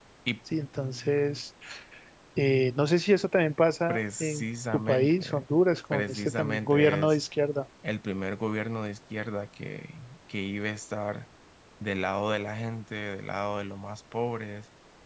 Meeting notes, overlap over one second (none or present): present